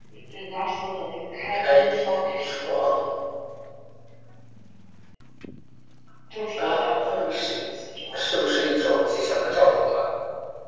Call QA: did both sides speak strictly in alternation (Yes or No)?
No